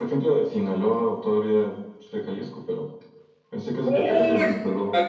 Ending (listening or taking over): taking over